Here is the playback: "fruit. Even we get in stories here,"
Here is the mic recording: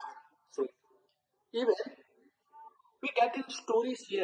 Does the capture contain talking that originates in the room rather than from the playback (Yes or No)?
No